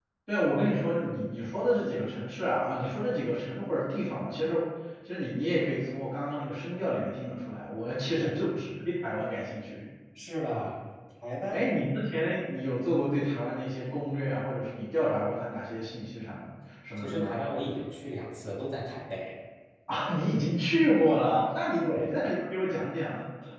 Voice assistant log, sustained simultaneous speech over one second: none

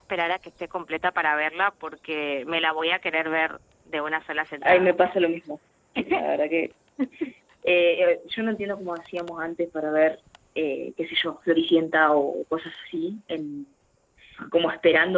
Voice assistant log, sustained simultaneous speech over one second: none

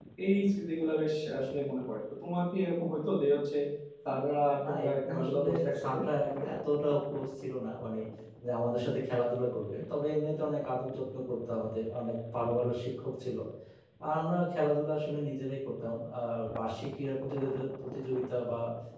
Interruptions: present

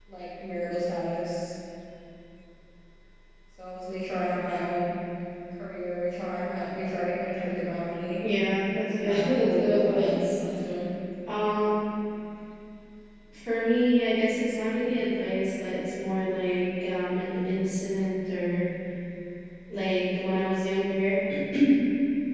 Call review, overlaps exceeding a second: present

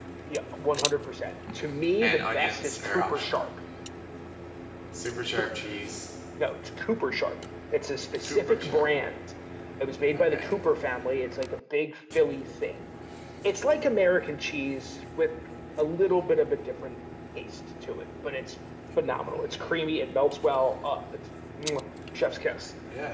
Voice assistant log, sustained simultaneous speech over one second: present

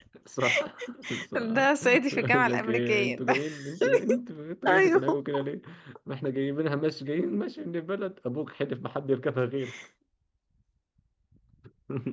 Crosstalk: present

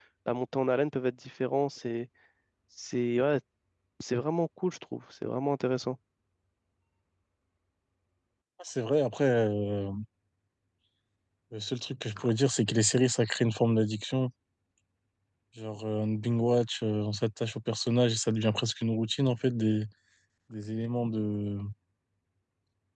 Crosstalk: none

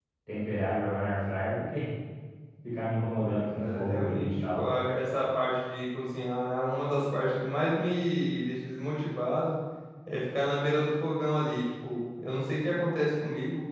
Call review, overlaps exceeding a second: present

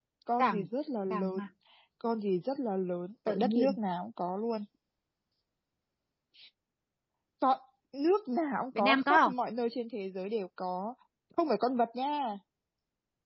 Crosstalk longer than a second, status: none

